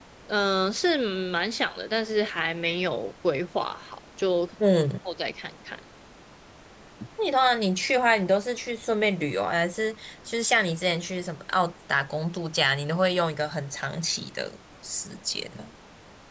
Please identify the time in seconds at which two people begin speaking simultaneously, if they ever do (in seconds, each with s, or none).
none